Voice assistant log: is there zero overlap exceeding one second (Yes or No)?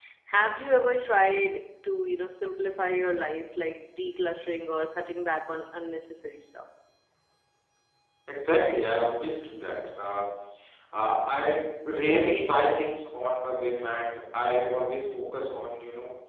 Yes